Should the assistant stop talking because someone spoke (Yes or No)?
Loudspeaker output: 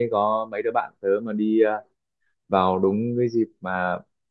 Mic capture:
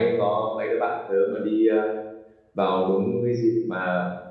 No